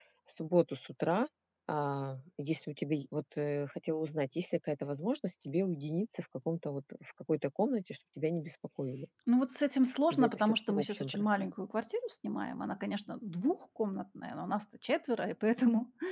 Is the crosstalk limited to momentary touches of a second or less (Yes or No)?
No